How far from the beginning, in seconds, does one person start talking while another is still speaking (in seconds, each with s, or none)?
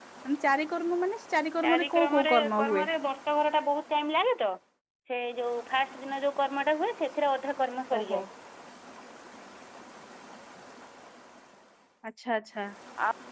1.6 s